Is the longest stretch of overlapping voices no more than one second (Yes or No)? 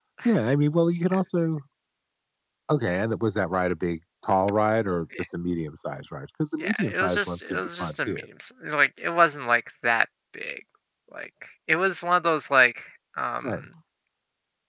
No